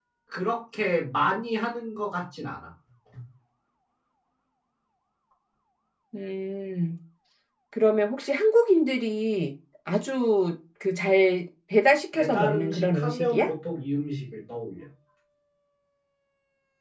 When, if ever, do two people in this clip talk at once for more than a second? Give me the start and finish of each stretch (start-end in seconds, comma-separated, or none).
12.1-13.5